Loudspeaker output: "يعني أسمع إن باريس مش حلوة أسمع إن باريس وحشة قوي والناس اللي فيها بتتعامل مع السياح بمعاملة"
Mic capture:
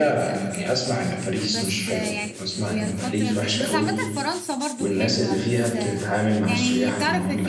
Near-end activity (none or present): present